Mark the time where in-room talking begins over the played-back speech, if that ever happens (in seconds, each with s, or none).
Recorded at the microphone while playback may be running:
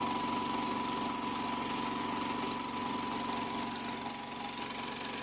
none